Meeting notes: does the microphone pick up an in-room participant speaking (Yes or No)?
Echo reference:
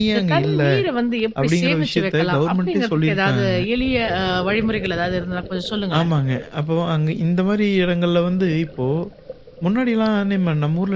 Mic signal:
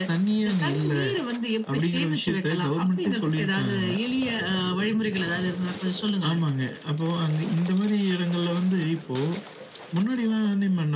No